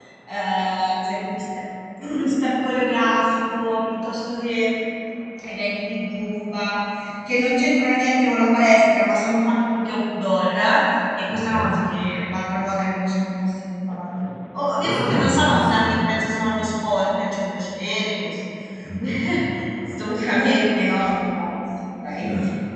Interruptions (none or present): present